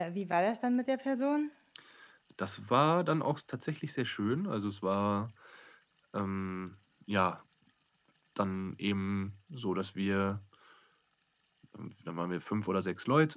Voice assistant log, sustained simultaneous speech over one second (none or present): none